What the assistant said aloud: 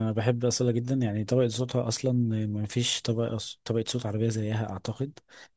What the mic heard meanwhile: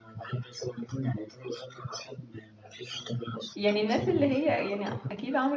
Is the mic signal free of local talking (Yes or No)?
No